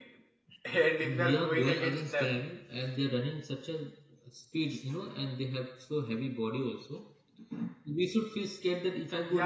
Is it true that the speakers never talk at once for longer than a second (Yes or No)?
No